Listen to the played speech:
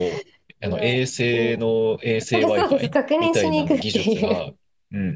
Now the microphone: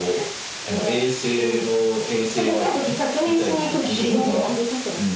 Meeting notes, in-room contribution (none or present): present